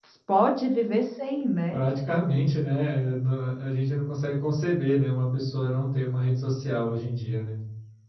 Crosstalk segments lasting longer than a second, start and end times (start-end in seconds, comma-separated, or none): none